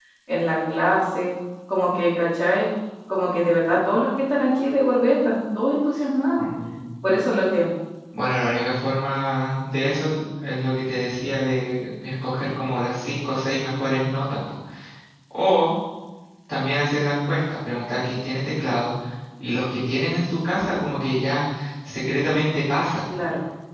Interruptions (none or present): none